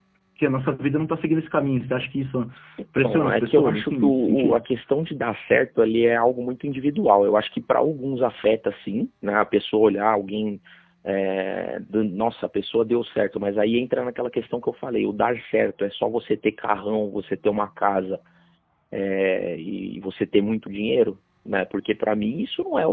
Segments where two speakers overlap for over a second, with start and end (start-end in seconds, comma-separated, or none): 3.0-4.6